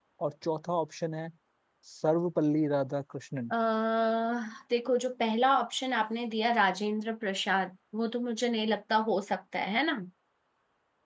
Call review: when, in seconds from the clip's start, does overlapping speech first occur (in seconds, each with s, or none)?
none